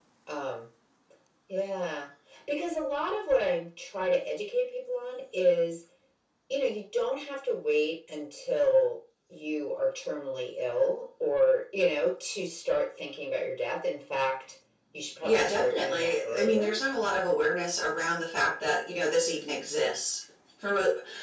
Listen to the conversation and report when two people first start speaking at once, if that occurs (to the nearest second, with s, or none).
15 s